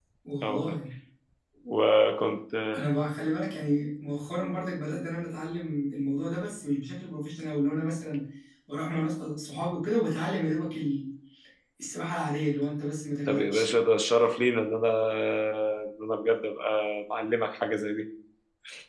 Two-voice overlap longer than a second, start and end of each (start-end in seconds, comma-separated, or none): none